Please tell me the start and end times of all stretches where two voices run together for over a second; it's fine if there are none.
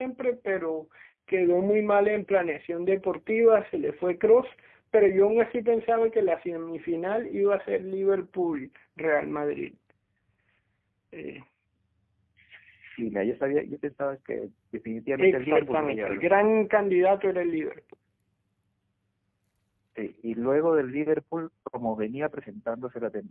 15.2-16.5

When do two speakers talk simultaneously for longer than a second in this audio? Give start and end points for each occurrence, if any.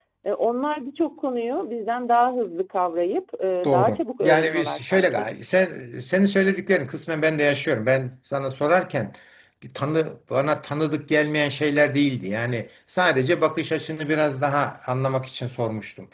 3.6-5.3

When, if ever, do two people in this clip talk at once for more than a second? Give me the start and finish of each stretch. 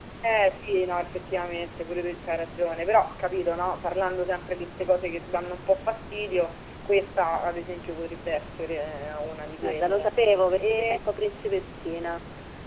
none

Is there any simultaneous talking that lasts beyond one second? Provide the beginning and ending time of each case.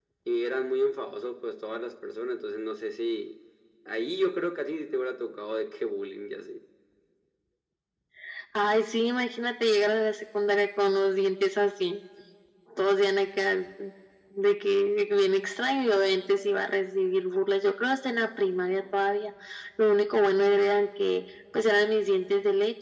none

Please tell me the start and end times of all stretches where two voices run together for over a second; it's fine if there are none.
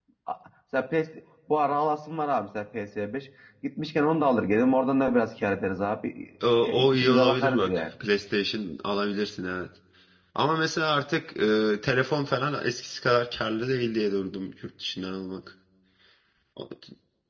6.6-7.8

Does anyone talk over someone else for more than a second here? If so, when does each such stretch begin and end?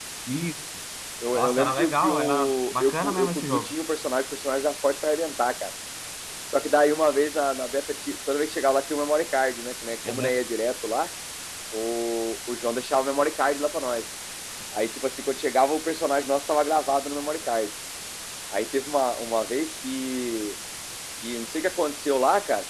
1.3-3.7

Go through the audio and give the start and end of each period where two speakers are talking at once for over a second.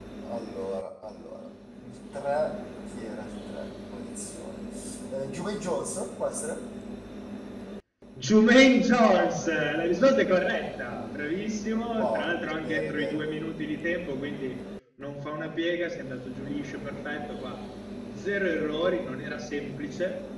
11.9-13.2

